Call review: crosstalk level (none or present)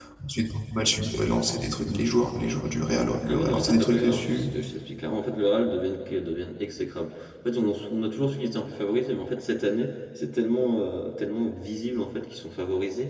present